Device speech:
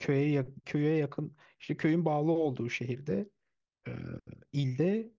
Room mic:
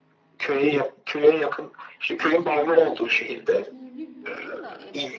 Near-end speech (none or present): present